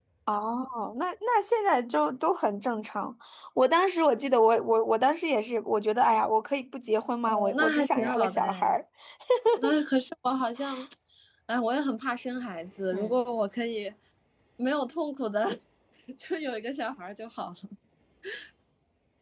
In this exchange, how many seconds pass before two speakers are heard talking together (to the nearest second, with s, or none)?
7 s